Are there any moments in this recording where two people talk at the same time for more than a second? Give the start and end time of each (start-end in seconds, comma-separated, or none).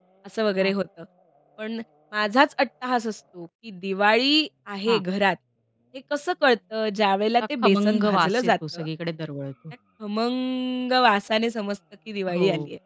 7.6-8.9